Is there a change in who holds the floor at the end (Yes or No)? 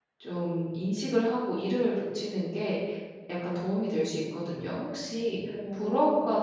No